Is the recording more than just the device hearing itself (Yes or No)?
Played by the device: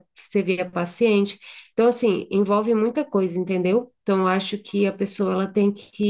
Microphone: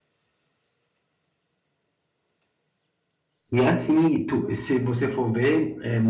Yes